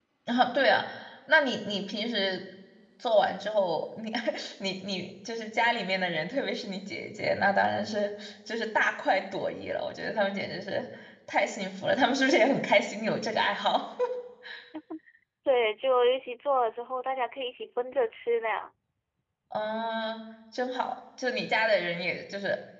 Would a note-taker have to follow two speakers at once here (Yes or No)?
No